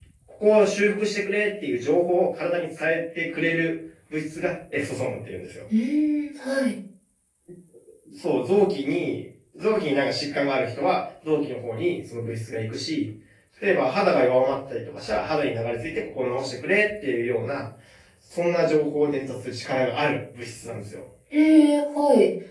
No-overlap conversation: Yes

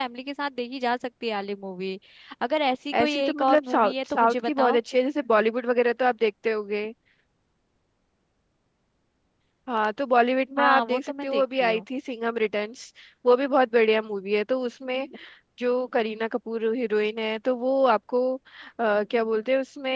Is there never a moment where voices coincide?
No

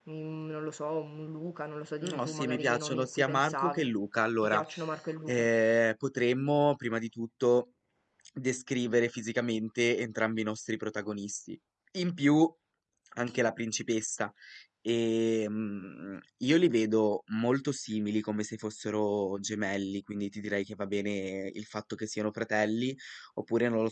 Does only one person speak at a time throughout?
No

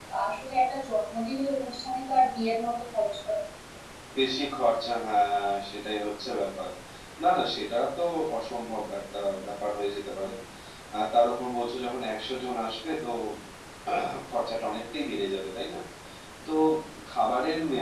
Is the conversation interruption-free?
Yes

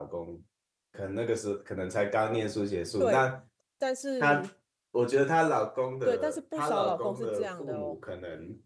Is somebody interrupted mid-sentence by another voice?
Yes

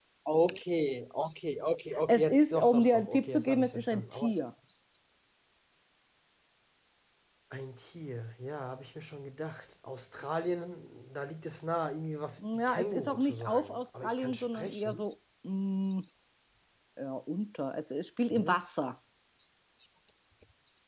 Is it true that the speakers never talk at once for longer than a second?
No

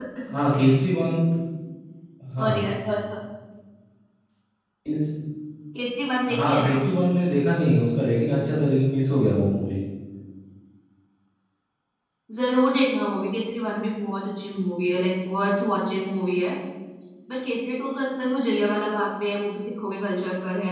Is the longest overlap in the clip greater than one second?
No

